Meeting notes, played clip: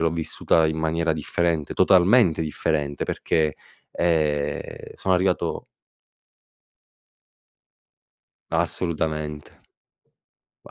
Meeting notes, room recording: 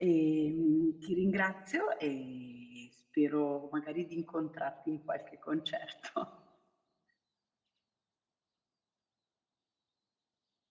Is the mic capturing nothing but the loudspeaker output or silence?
No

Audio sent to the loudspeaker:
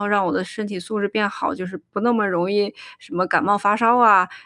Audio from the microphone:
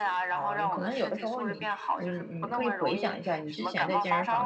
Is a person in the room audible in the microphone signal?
Yes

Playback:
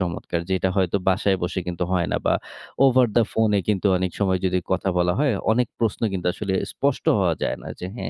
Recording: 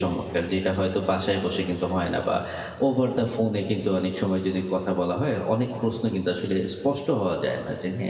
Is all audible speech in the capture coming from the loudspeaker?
Yes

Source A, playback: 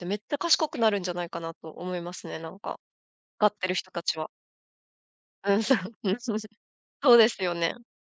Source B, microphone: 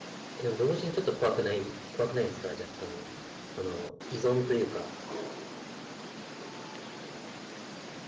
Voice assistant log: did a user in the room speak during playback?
Yes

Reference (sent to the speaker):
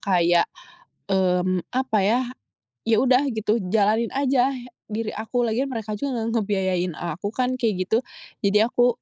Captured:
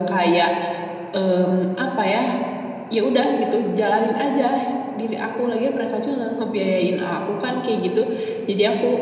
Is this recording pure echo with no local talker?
Yes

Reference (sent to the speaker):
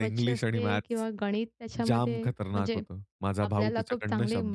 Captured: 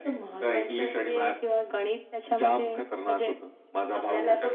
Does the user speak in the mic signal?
No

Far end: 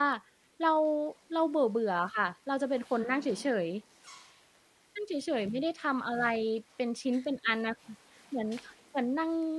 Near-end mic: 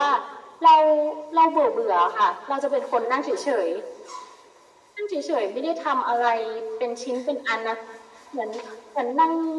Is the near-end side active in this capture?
No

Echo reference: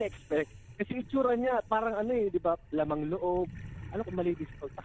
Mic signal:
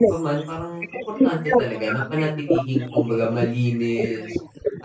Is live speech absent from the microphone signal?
No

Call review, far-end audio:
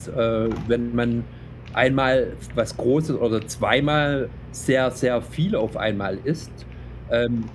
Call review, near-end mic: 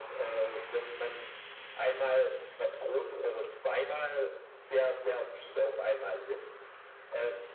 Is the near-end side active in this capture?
No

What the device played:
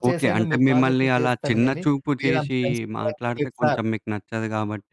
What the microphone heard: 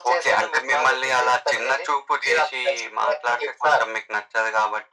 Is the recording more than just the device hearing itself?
No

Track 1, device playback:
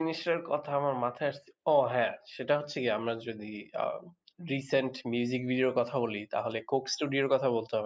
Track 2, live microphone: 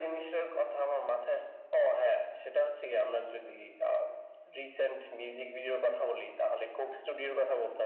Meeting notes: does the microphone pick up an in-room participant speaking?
No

